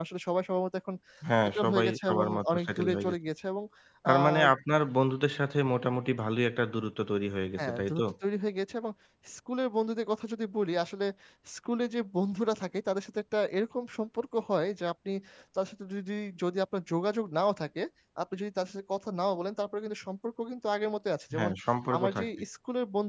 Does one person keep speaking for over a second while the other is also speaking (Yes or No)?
Yes